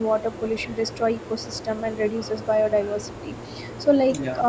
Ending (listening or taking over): listening